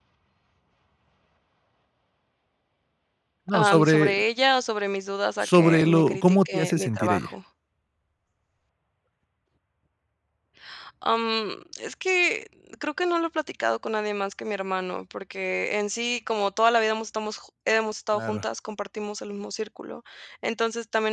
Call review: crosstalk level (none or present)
present